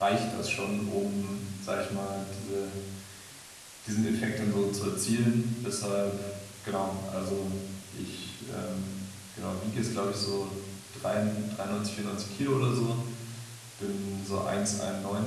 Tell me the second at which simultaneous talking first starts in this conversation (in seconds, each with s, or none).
none